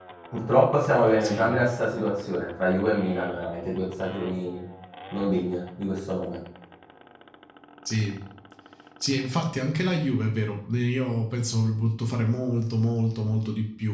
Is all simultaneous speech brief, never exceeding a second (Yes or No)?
Yes